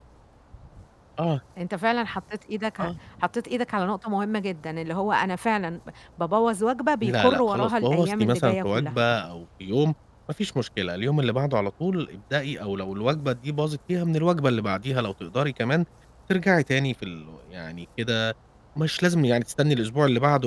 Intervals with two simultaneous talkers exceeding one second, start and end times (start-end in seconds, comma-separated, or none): 7.0-8.9